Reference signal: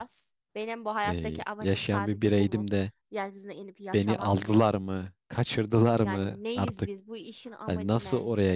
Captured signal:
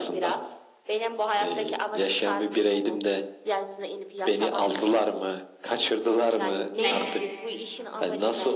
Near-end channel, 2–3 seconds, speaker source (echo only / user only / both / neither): echo only